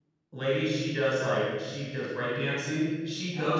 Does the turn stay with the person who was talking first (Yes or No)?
Yes